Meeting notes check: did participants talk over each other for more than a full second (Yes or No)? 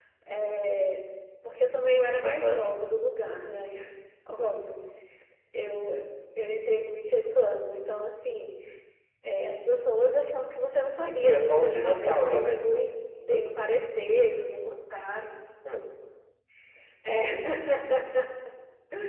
Yes